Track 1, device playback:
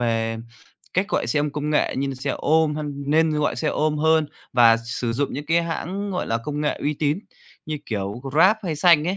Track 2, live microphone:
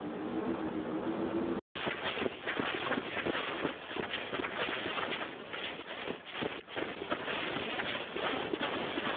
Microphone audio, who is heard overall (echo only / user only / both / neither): neither